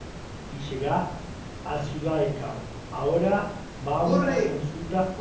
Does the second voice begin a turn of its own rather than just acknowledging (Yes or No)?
Yes